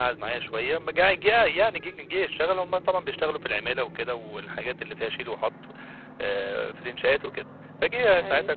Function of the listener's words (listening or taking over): listening